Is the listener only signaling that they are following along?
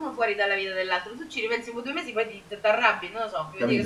No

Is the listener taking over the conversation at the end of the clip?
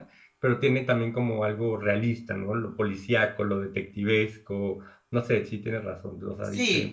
Yes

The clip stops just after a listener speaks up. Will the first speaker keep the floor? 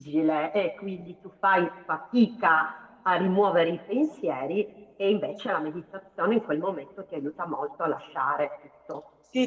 No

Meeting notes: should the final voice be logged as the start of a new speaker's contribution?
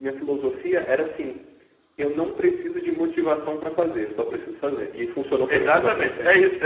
Yes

